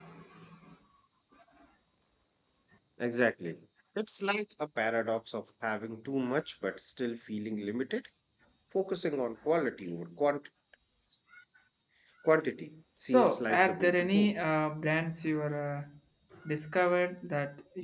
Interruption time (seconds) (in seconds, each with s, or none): 13.0 s